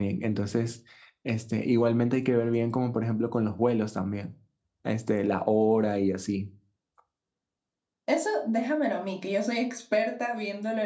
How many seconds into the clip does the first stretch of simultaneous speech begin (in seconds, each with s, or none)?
none